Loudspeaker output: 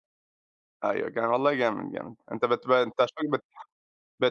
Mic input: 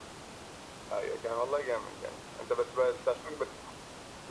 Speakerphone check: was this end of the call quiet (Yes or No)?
Yes